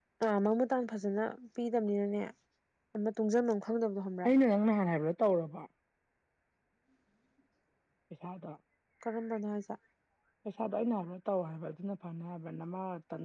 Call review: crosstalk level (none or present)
none